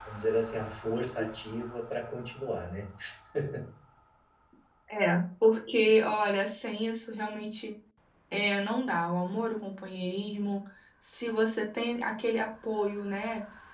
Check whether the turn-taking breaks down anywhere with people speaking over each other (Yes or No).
No